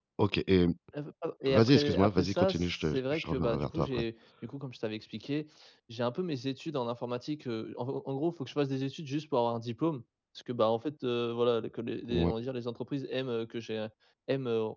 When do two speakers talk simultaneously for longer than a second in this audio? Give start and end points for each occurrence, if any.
1.5-4.0

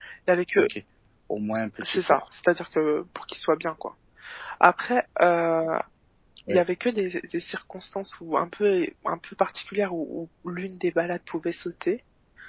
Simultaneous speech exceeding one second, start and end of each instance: none

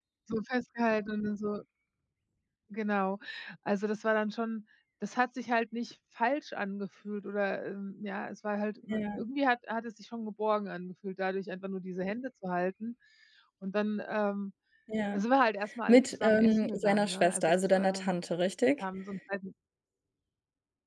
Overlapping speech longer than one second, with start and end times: 15.9-18.2

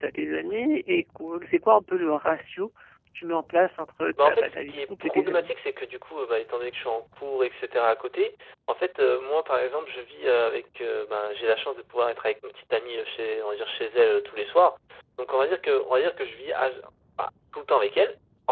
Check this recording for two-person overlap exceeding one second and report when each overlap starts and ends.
4.2-5.5

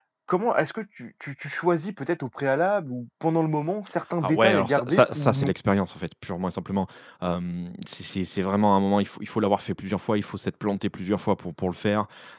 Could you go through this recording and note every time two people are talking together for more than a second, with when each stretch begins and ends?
4.2-5.5

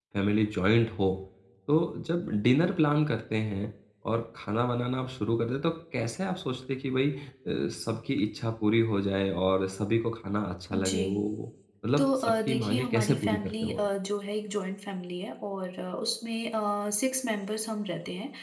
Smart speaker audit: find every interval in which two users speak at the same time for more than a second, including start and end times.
12.0-13.9

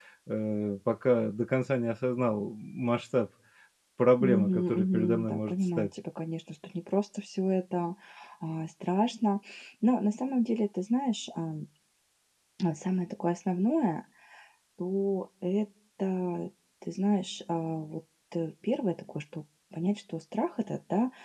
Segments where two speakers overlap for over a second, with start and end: 4.2-5.9

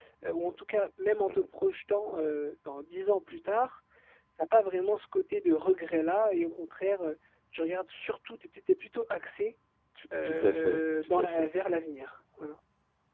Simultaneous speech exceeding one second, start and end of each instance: 10.2-11.5

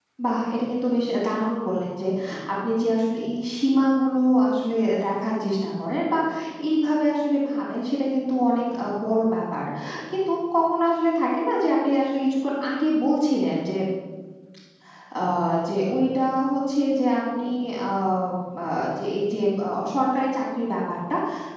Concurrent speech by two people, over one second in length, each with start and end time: none

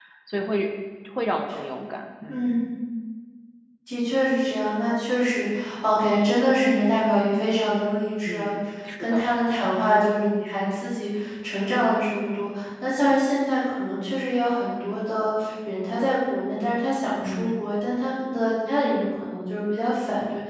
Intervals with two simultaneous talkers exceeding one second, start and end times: none

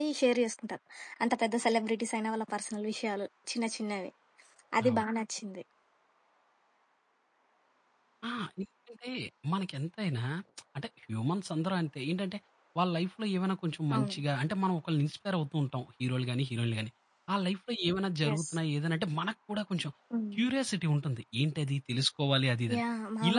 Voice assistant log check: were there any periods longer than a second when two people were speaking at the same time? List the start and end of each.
none

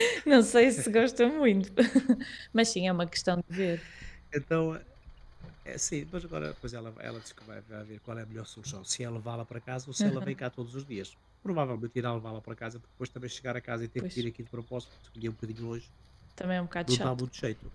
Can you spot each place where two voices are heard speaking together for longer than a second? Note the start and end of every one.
none

